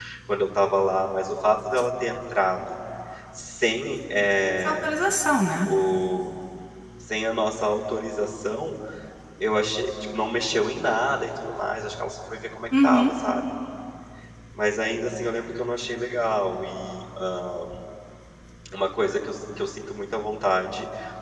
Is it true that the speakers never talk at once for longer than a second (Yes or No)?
Yes